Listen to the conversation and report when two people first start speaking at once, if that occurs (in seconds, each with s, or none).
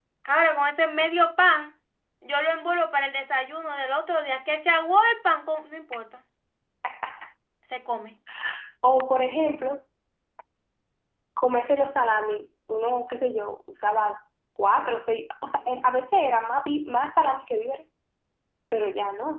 none